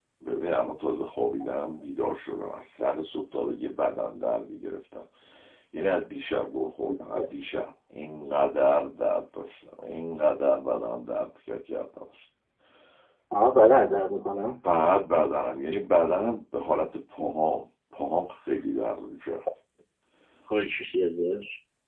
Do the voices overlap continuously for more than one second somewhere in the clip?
No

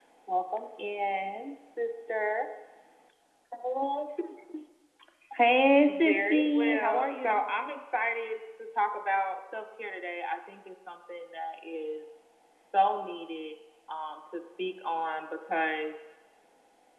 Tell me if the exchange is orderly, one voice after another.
No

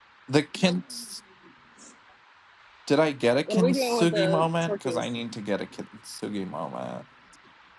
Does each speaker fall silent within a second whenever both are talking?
No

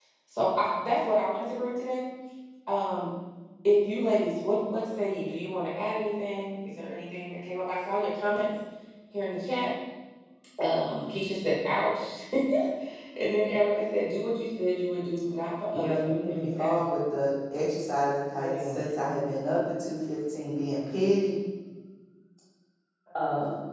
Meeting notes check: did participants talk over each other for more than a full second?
Yes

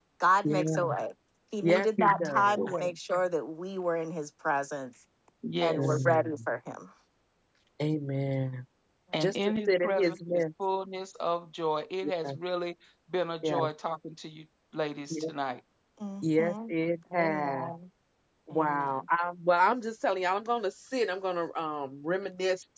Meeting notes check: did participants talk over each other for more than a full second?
Yes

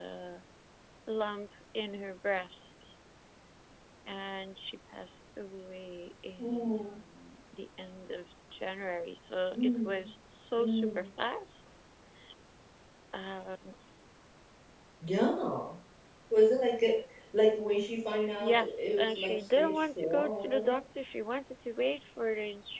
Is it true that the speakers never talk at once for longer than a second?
No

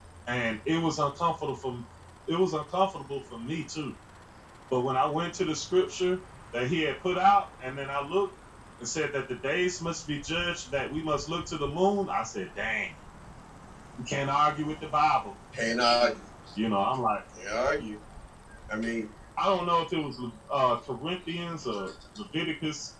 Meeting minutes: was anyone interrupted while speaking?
No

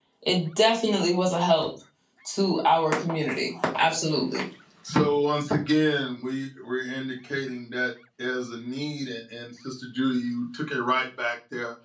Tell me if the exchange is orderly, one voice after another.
Yes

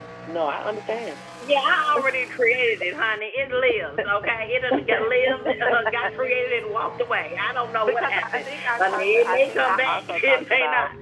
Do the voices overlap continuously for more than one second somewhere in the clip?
Yes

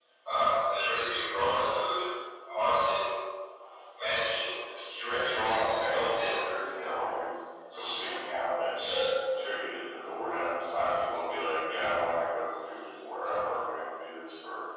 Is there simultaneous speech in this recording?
Yes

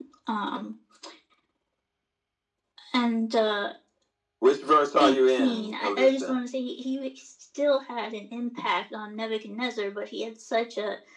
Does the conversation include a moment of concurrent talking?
Yes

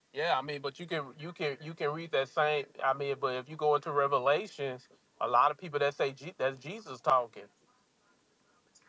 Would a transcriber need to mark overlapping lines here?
No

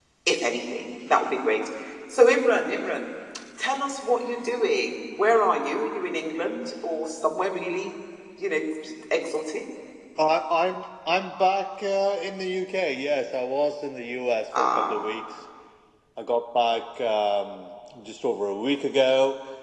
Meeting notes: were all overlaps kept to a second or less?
Yes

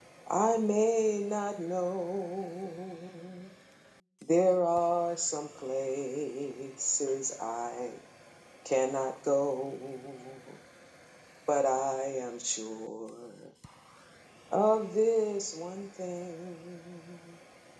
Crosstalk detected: No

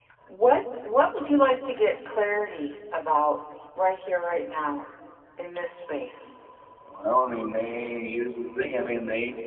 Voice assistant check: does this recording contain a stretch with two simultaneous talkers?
No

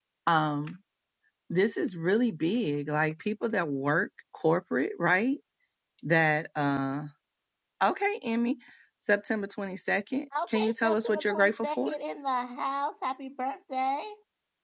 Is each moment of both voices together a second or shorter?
No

